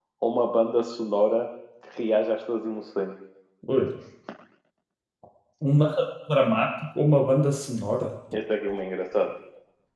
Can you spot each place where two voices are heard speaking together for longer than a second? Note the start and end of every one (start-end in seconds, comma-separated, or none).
none